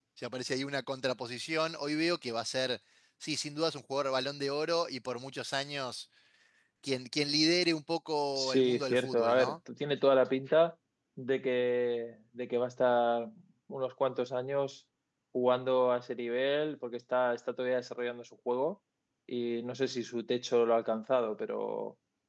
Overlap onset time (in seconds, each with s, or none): 8.3 s